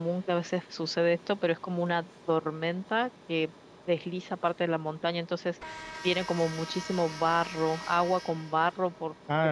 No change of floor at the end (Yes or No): No